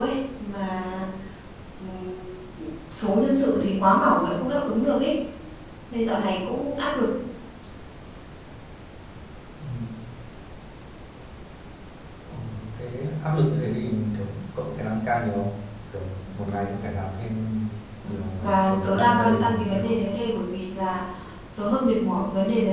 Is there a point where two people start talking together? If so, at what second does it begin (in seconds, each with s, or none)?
18.4 s